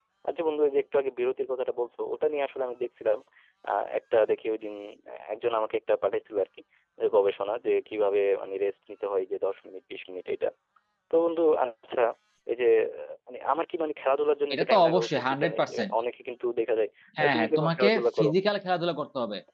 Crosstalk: present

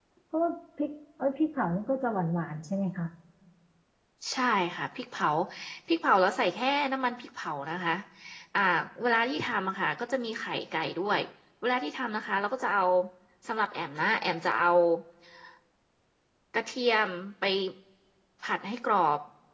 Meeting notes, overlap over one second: none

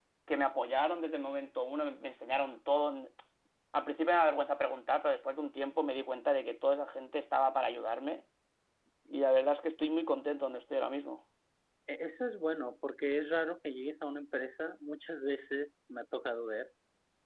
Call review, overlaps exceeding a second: none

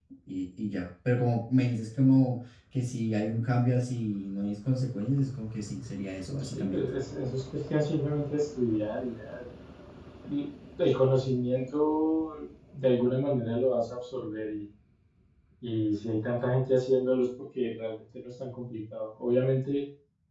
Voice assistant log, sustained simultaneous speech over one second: none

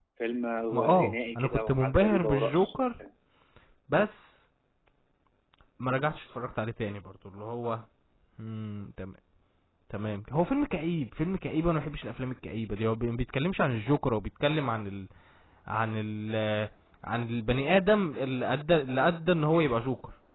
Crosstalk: present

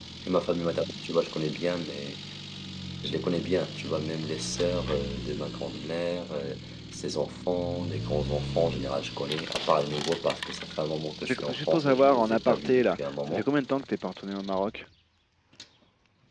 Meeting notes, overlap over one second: present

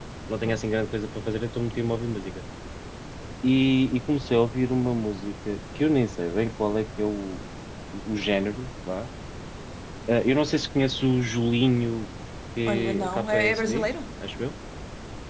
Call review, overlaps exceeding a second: present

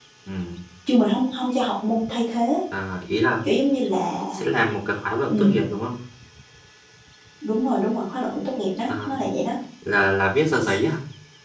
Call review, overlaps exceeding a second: none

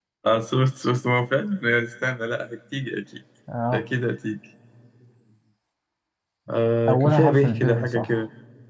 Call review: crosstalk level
present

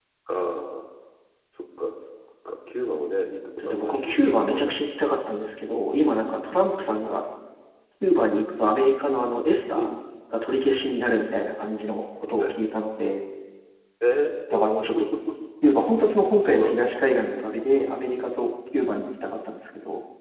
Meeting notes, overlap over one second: present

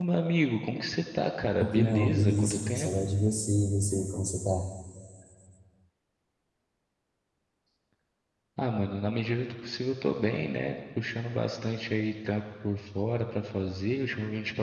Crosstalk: present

